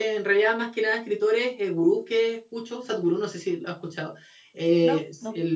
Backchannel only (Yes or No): Yes